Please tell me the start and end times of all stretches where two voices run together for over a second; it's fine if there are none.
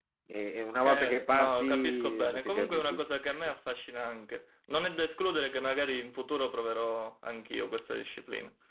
0.8-3.0

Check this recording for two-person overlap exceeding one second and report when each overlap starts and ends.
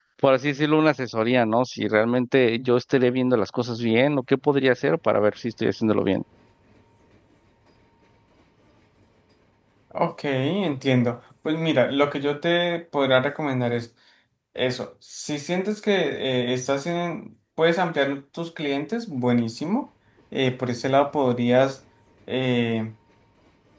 none

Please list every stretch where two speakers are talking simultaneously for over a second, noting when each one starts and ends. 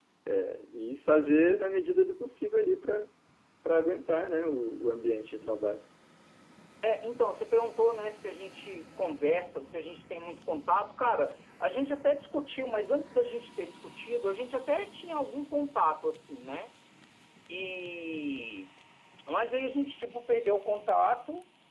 none

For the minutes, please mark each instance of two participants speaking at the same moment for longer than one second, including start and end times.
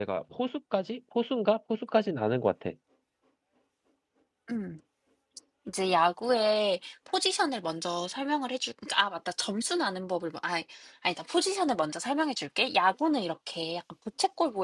none

